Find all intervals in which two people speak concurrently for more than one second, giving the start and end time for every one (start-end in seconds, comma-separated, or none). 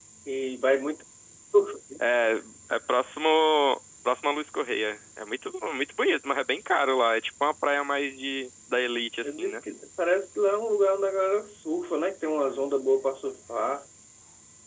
none